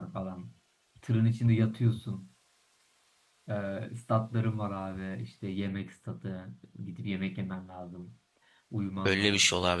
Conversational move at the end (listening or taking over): taking over